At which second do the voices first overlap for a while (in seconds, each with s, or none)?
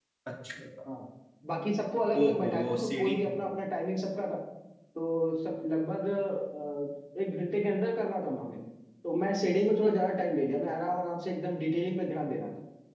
2.2 s